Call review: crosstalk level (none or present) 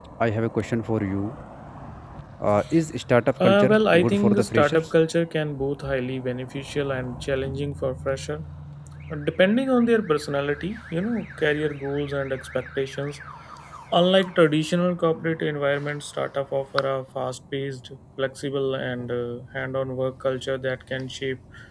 present